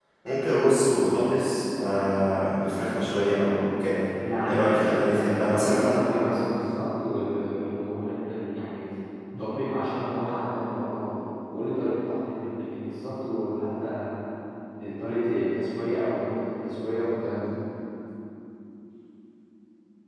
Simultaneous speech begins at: 4.5 s

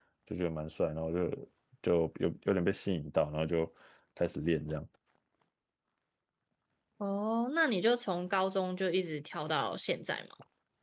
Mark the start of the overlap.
none

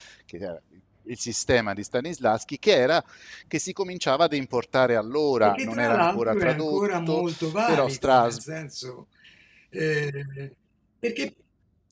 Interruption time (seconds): 5.4 s

